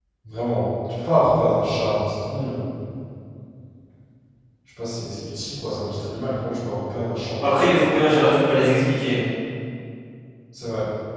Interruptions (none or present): none